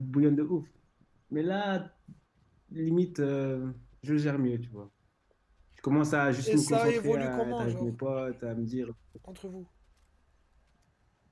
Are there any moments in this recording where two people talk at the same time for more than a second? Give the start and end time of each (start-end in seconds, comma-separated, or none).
6.4-7.9